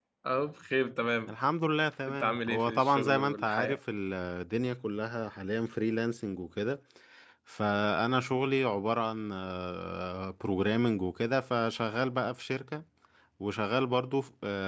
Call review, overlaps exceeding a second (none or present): present